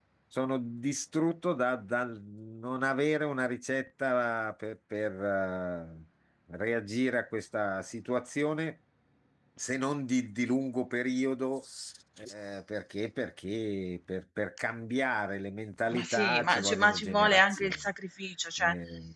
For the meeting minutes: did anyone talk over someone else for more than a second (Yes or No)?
Yes